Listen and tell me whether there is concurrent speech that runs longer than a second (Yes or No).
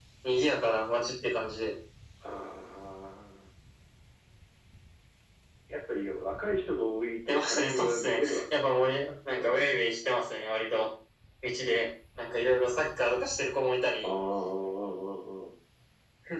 Yes